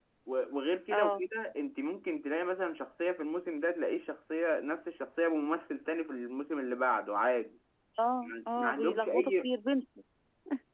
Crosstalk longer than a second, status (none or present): present